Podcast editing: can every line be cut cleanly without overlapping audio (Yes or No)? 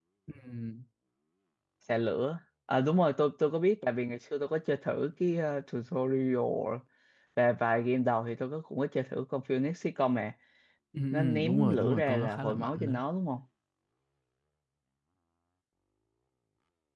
No